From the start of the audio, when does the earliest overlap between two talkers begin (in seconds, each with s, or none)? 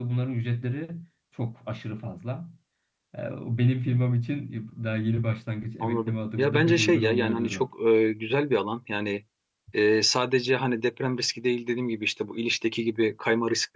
5.8 s